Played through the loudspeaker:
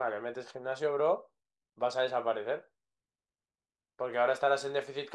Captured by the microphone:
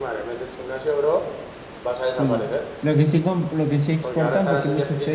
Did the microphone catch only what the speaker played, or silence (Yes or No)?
No